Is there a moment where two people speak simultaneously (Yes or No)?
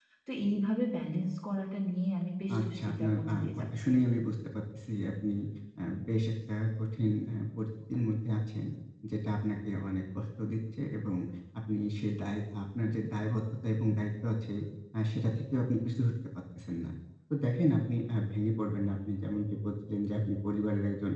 Yes